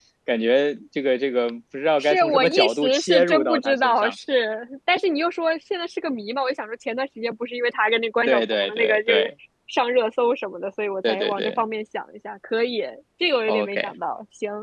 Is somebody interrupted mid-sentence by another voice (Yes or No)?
Yes